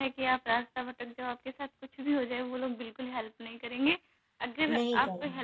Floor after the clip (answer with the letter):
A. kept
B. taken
A